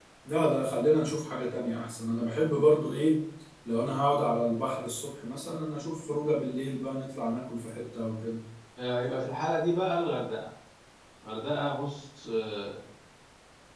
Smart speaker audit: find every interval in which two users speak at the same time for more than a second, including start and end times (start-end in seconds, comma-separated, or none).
none